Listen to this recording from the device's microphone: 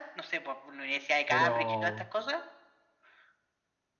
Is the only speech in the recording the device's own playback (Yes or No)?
No